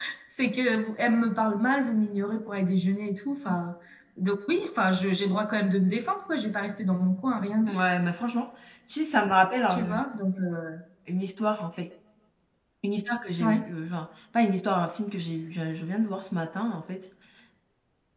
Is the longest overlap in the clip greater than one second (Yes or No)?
No